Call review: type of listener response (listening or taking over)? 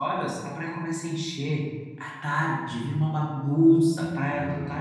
listening